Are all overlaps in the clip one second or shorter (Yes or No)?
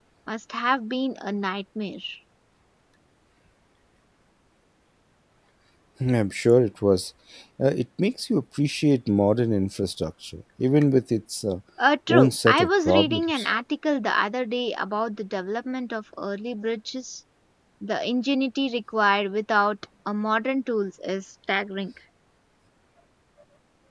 No